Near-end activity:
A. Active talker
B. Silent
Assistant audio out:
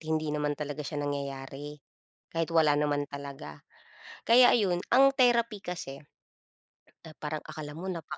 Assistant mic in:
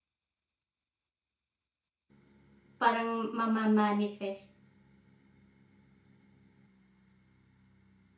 A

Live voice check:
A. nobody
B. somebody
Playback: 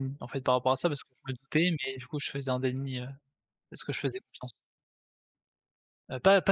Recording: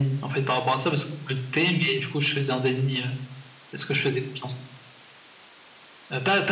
A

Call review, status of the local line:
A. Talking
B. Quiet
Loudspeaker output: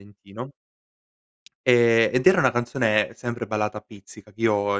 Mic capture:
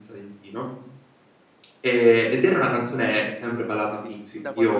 A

